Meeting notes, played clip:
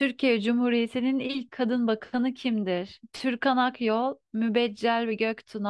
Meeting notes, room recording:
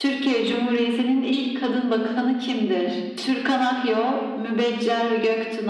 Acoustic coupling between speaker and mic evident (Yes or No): Yes